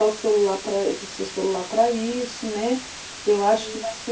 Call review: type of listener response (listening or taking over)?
listening